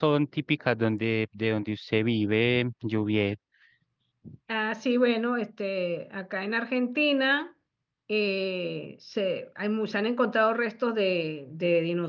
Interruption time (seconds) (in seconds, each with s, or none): none